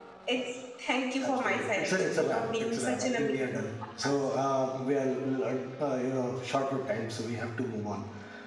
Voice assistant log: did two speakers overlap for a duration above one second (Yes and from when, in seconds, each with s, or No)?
Yes, from 1.2 s